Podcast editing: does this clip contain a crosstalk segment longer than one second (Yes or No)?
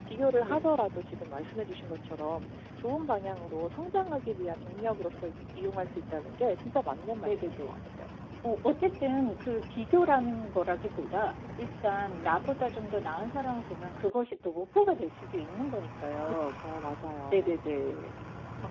No